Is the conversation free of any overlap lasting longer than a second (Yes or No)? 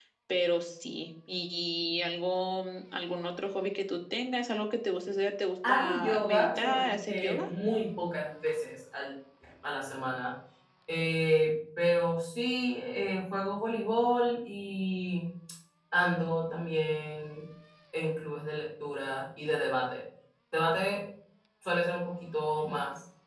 No